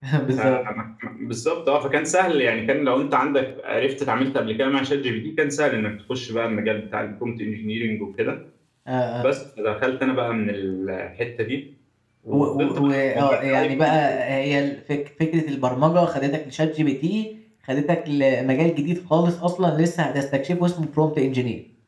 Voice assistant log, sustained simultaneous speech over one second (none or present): present